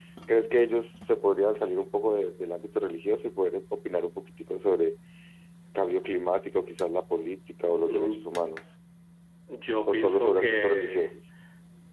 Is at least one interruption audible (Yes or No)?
Yes